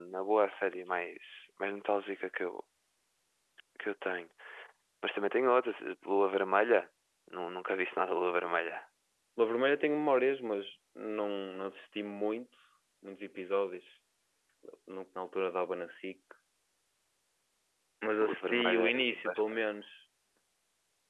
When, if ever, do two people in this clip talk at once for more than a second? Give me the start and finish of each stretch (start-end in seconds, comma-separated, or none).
18.2-19.7